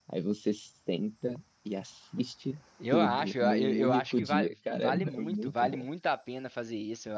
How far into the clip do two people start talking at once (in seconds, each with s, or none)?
2.8 s